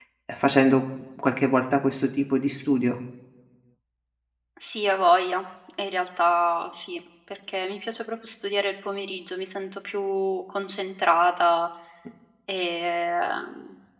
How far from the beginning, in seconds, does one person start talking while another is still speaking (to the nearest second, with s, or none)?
none